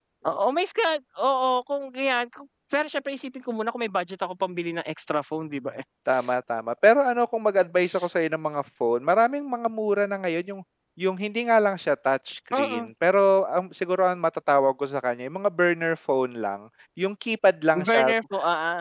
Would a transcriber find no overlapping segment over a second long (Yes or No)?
Yes